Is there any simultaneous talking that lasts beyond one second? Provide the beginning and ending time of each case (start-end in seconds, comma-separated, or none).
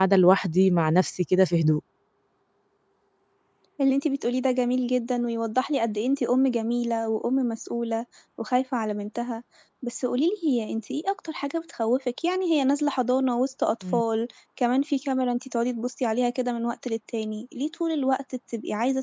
none